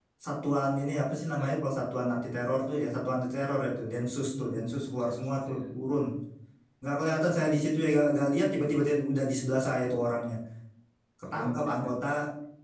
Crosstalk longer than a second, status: present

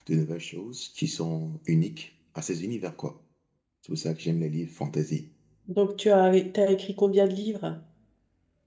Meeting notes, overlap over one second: none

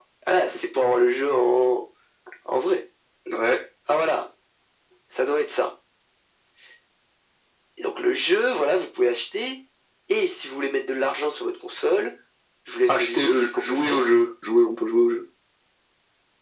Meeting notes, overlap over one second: present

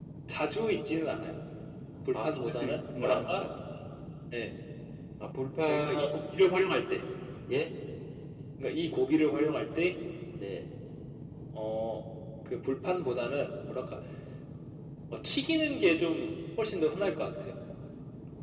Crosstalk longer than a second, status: present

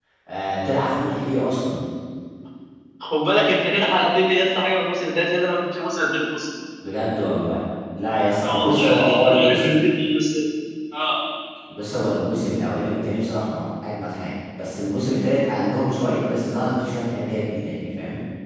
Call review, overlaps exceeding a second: present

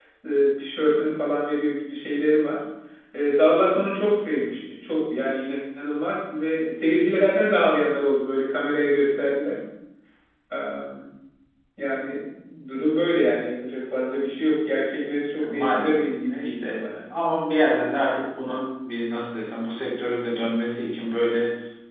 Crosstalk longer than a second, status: present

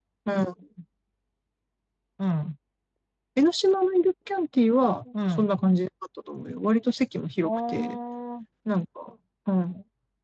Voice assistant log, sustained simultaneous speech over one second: none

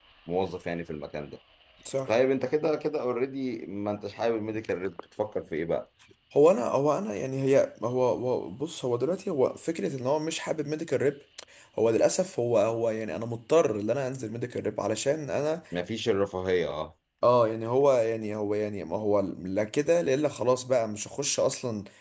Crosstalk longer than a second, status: none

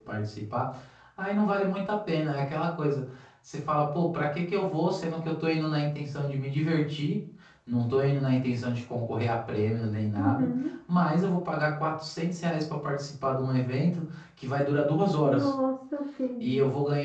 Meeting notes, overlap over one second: none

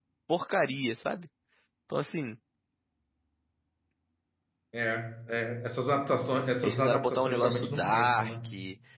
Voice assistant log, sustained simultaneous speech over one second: present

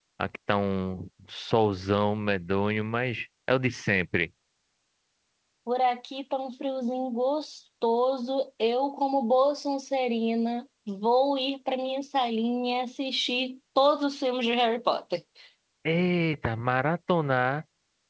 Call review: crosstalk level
none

